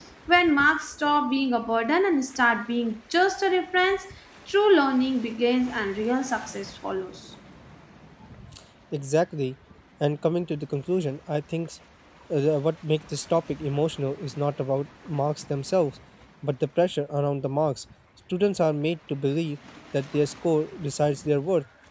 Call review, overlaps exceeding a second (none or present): none